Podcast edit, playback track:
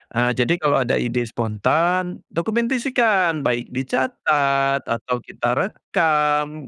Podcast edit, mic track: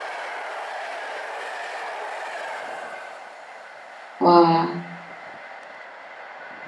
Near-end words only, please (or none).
Wah,